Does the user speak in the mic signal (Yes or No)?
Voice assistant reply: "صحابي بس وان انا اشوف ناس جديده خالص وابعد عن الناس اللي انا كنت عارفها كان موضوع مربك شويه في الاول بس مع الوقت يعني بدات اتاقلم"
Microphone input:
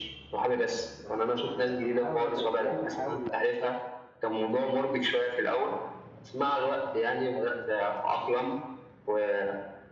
Yes